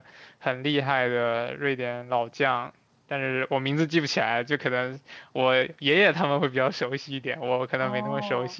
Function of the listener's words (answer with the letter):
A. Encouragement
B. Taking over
B